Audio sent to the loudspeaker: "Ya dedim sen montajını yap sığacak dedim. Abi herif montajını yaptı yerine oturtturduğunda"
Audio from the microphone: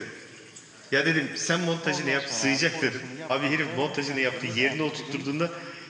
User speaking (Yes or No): Yes